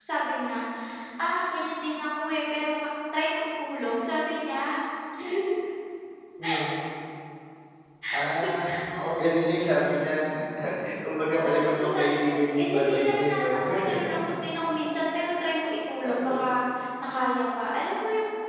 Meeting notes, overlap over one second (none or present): present